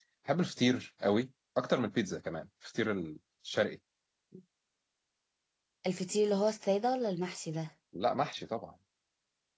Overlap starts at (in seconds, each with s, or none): none